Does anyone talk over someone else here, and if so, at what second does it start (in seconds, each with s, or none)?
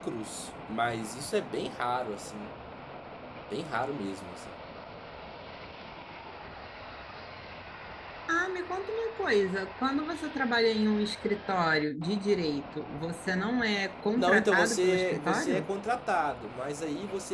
14.2 s